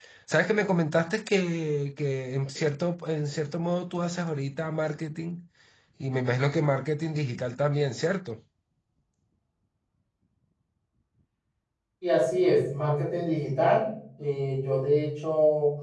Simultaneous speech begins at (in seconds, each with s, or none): none